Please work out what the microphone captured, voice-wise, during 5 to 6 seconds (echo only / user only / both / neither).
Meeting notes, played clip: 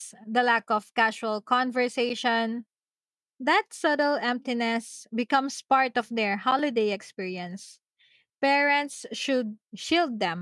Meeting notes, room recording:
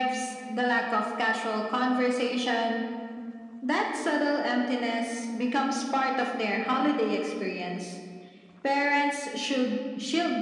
echo only